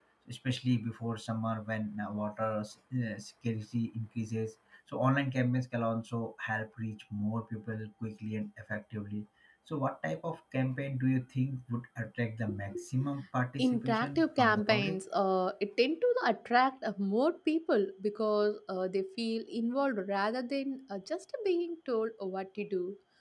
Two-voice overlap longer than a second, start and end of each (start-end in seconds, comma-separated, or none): 13.6-15.0